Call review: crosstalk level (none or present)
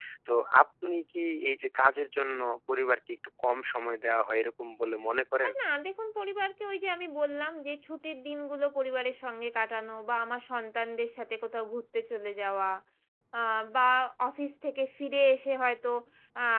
none